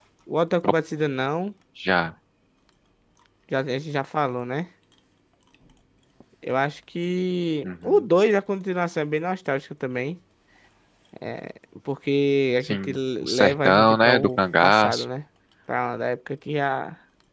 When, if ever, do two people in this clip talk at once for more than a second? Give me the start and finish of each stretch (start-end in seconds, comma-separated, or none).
12.7-15.0